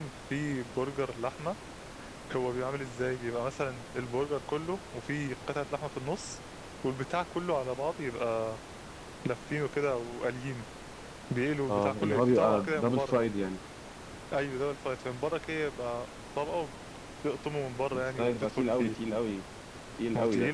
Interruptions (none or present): present